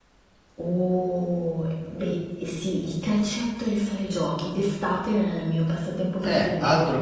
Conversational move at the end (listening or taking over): taking over